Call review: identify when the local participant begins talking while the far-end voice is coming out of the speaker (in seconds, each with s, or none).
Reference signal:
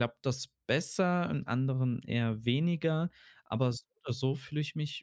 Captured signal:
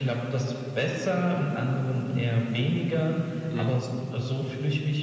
3.5 s